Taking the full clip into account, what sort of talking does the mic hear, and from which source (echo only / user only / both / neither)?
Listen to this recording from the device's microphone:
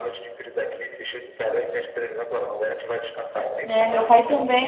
both